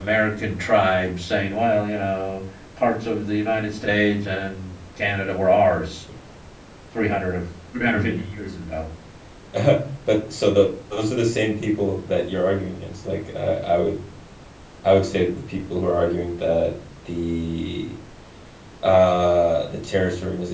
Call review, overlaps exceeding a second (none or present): none